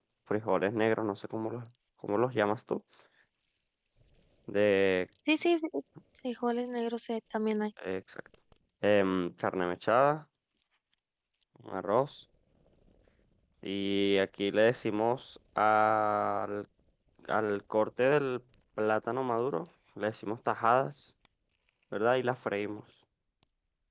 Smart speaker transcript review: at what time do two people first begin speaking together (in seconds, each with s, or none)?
none